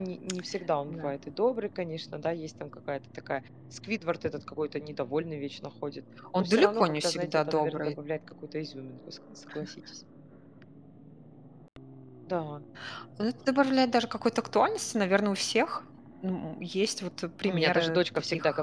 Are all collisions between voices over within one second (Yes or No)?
No